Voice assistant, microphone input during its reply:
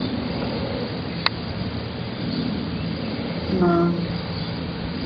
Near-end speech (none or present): present